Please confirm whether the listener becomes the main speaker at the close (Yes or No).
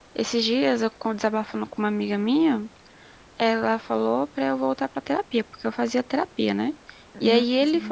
No